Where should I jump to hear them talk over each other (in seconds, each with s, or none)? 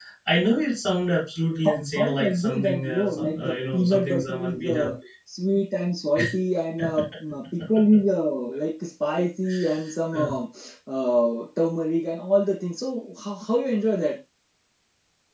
1.6 s